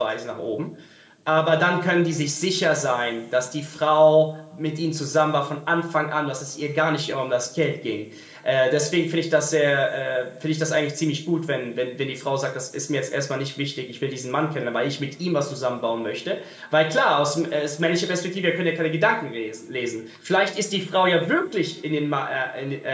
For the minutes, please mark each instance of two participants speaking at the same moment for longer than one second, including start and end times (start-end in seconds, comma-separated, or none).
none